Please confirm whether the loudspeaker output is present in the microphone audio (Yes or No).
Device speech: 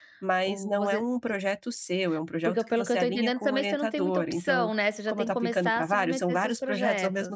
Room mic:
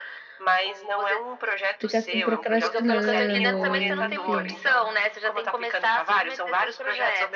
Yes